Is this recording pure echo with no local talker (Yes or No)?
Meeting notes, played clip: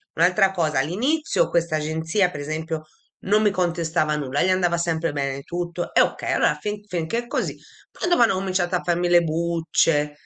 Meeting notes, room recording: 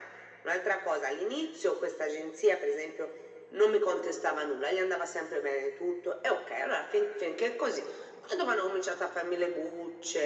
Yes